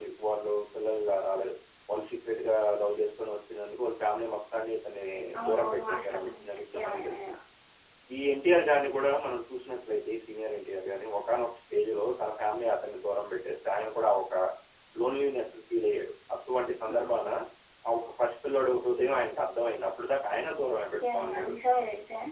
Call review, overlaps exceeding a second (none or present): present